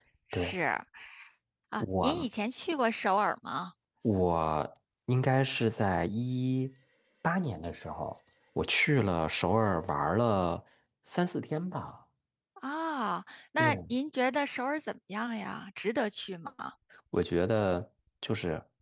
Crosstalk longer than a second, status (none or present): none